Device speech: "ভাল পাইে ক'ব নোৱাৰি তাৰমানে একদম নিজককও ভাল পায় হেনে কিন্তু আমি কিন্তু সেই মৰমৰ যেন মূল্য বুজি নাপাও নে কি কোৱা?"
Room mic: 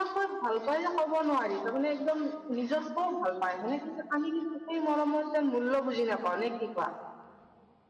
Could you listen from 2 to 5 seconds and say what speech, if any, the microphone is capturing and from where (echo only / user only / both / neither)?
echo only